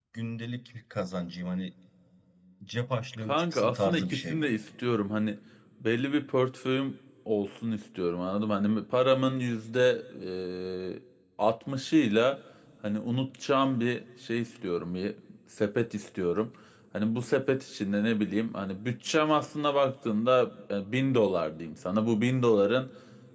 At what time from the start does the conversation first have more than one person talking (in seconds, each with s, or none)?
3.3 s